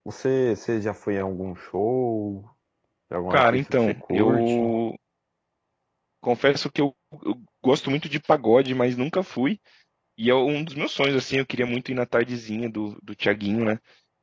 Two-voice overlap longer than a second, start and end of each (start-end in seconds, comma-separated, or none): 3.3-4.6